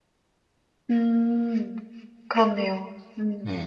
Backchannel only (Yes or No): No